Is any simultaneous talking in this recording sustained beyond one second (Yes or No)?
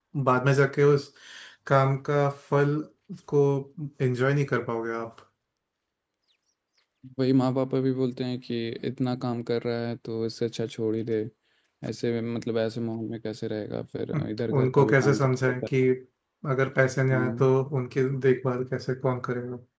Yes